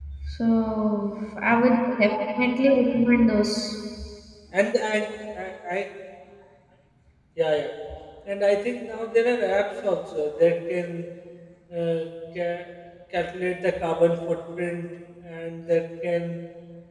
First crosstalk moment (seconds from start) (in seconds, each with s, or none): none